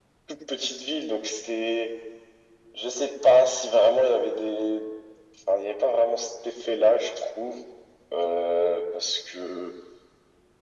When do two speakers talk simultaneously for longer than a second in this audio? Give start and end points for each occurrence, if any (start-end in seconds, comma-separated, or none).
none